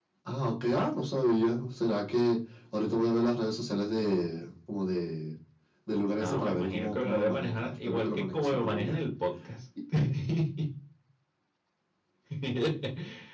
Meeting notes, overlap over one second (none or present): present